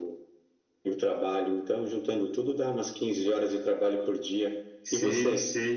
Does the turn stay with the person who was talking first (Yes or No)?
No